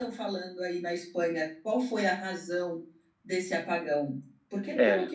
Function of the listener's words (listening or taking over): listening